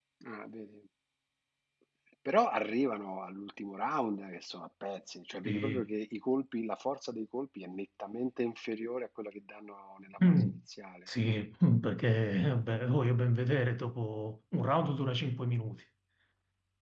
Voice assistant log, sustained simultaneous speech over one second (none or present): none